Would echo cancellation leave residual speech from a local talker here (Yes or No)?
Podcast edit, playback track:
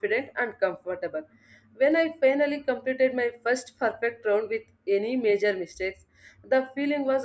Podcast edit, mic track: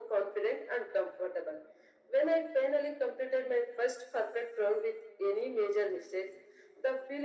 No